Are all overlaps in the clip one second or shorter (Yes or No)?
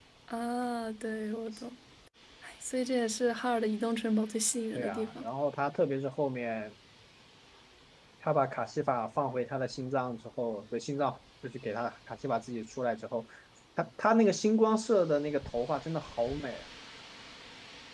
Yes